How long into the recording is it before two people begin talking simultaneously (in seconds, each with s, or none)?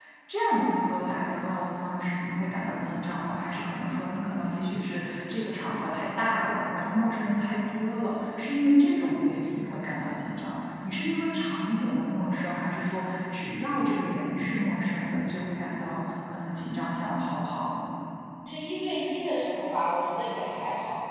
none